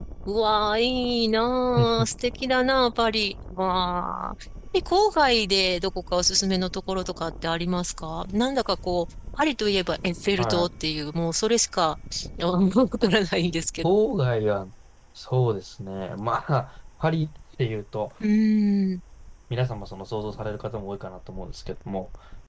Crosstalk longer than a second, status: none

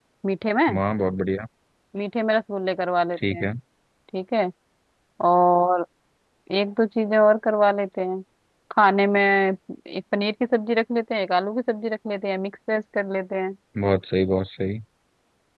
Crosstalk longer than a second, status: none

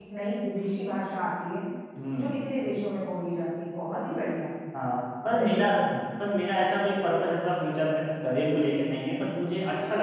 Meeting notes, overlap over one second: none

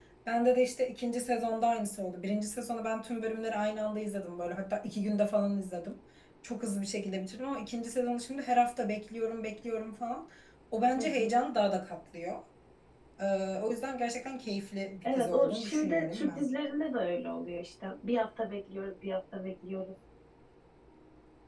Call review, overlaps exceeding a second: present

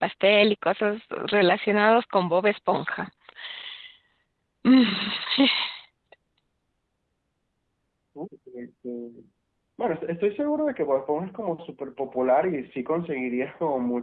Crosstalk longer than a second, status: none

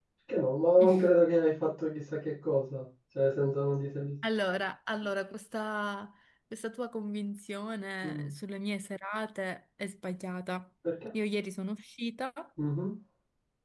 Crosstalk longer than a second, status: none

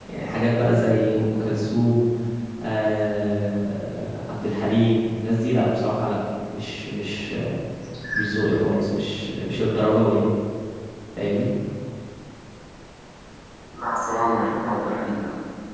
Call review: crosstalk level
none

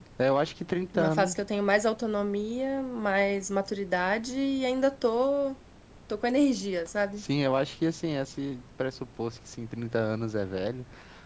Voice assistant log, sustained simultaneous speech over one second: none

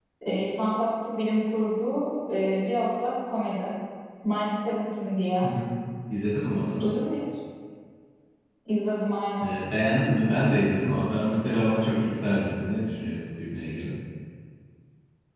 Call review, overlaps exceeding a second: none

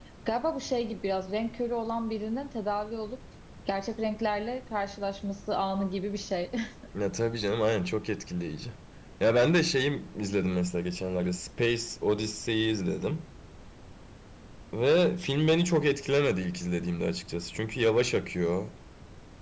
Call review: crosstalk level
none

